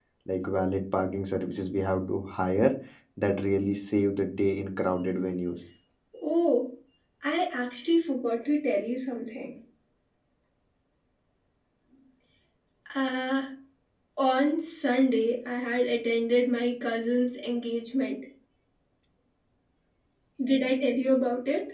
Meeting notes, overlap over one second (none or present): none